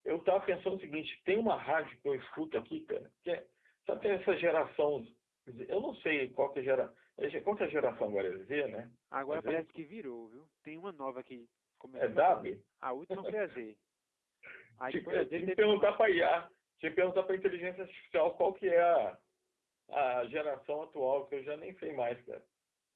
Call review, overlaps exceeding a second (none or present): present